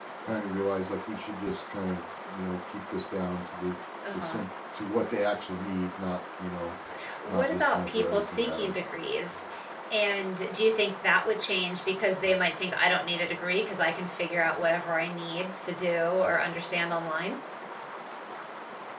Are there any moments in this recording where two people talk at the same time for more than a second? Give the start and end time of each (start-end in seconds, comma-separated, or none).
7.3-8.7